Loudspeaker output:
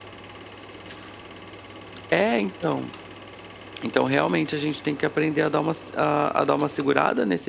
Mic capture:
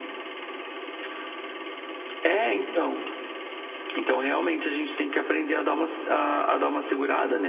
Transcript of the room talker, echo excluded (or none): none